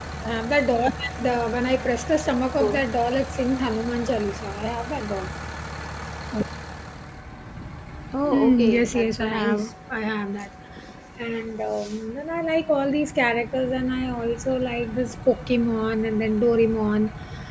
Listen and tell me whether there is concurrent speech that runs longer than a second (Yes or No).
Yes